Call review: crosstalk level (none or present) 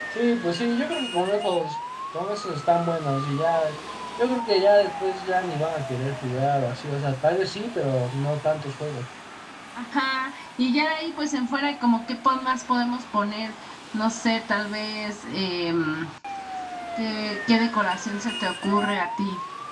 none